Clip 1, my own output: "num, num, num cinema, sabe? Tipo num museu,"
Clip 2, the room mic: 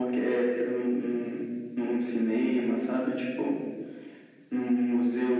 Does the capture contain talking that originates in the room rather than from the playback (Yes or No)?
No